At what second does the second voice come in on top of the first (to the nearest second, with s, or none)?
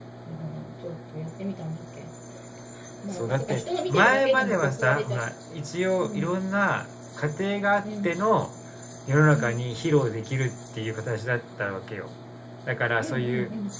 3 s